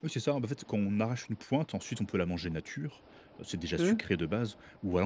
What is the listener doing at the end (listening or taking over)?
listening